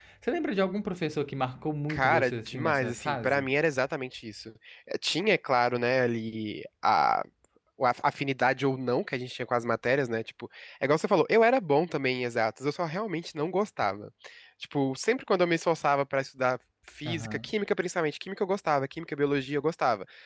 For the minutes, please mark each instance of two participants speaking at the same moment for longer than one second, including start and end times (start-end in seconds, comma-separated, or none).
1.9-3.5